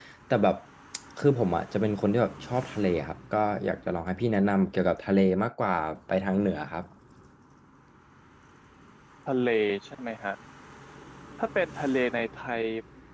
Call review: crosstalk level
none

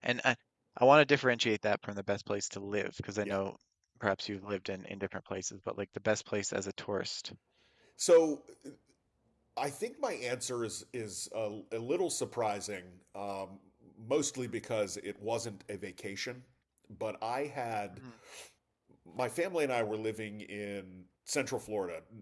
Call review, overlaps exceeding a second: none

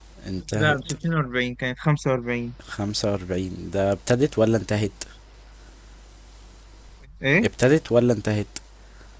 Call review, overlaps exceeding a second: none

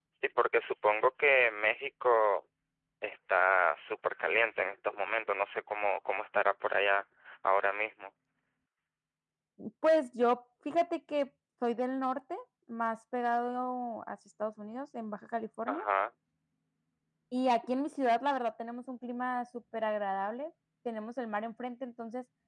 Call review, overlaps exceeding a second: none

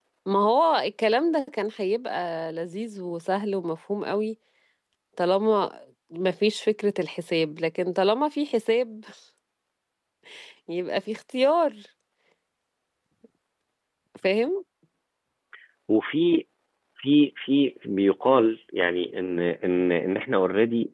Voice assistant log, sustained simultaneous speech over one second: none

